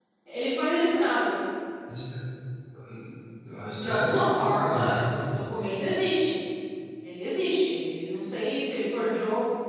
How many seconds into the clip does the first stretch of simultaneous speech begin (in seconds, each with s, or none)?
3.7 s